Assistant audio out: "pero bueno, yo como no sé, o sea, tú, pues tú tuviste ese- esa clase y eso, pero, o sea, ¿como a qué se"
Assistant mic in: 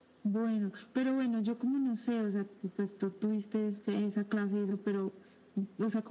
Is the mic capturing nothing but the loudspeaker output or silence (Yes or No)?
Yes